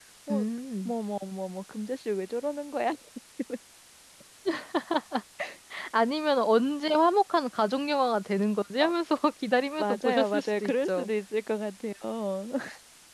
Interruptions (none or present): present